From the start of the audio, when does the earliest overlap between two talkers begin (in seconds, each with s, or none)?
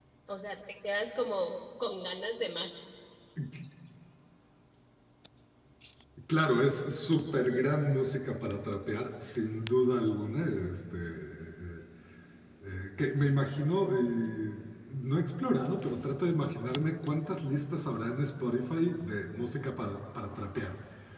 none